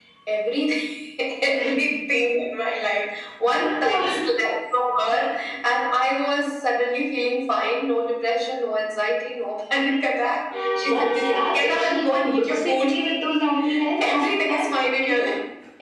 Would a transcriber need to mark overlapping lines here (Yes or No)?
Yes